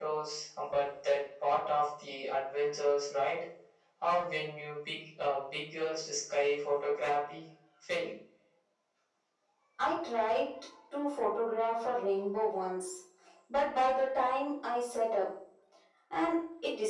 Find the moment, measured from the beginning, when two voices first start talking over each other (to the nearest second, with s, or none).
none